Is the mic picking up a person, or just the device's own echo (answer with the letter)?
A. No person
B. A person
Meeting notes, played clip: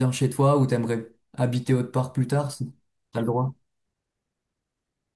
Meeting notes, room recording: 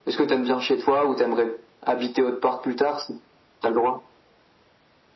A